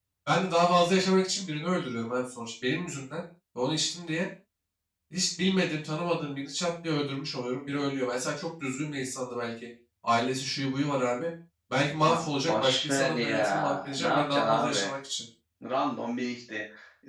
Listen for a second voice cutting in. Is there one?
Yes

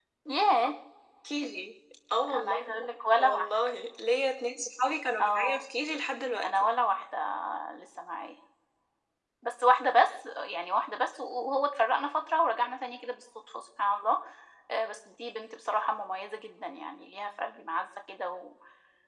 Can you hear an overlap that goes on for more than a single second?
No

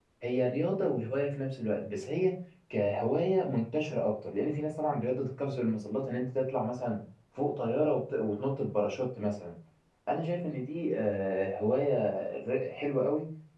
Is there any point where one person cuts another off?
No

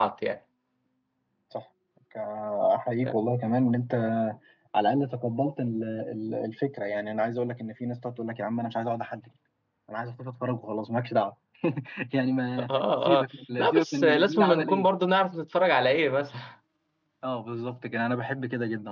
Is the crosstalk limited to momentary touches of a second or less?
No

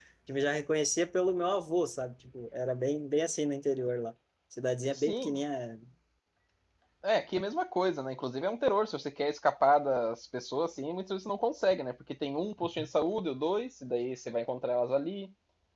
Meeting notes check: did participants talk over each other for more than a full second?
No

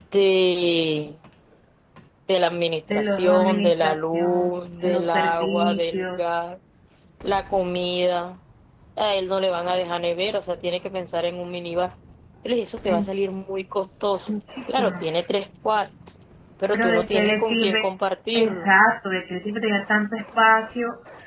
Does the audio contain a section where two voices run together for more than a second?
Yes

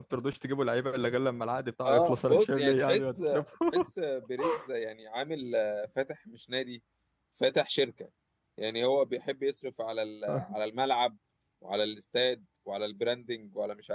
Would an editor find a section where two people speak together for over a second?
Yes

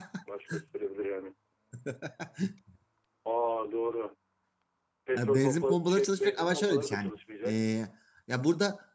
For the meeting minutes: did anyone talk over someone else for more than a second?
Yes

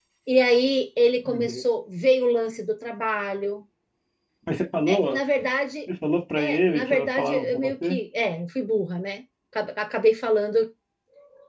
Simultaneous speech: Yes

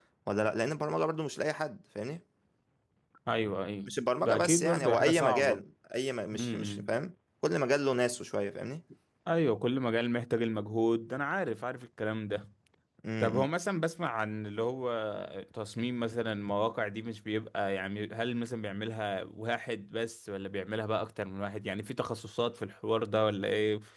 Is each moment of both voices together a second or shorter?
No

